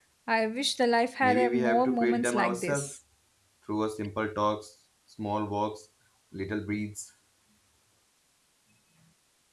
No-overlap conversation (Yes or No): No